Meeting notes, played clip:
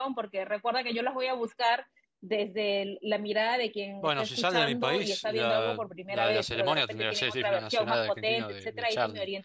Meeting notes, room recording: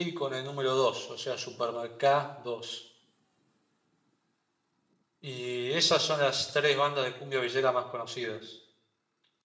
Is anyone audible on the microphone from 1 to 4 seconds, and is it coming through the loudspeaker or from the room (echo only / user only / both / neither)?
user only